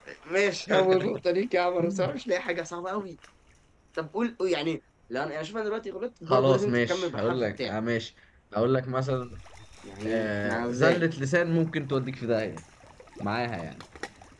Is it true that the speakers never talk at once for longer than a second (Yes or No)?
No